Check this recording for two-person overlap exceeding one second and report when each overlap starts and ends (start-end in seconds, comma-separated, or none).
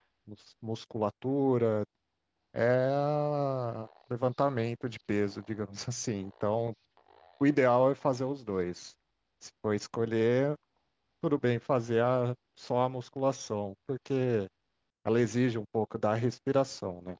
none